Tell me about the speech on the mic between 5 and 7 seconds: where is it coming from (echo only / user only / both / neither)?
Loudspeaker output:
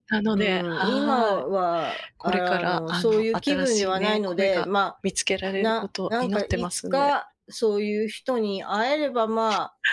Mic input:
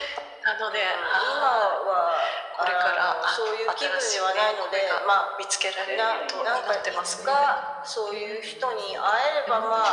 both